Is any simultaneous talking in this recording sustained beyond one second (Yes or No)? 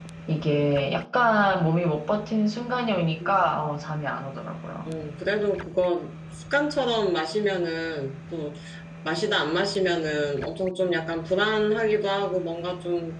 No